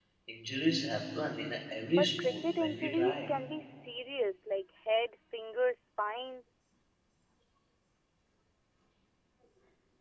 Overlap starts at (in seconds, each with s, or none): 1.9 s